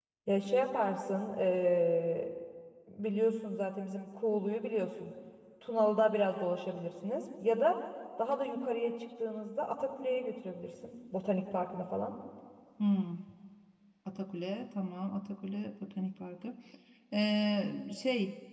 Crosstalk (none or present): none